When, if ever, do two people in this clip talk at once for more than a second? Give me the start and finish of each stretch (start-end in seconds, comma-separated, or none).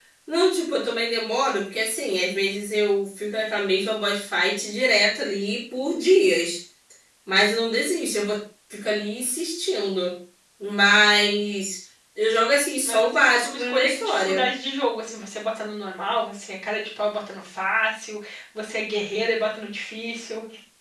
12.8-14.4